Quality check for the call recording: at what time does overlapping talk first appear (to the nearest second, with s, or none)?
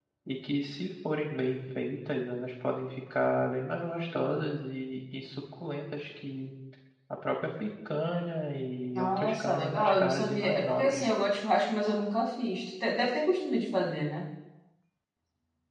9 s